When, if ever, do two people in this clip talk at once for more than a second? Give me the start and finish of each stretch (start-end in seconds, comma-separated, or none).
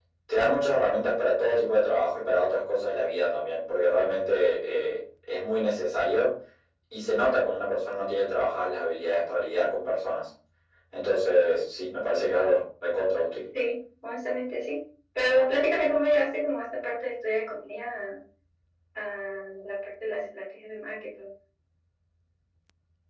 none